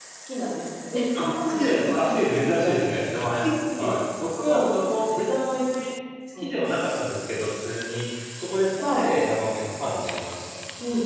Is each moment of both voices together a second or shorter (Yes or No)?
No